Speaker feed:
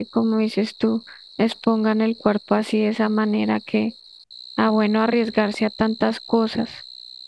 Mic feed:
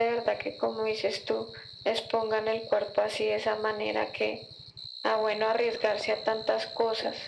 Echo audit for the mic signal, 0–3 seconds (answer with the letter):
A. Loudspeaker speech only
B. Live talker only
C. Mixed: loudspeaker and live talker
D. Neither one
A